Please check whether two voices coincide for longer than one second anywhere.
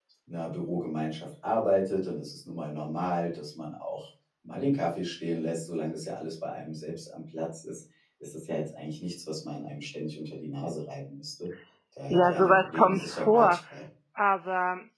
Yes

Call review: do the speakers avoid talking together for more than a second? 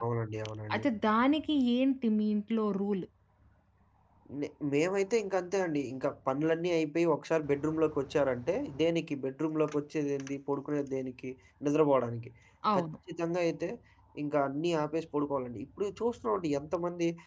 Yes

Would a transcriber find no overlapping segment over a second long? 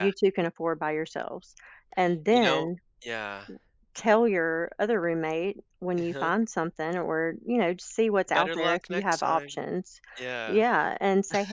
No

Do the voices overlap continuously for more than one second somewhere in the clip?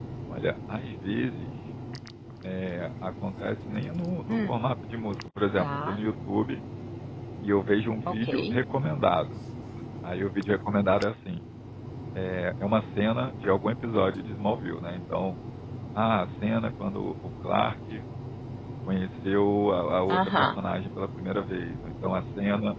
No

